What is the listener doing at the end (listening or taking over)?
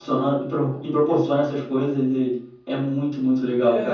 taking over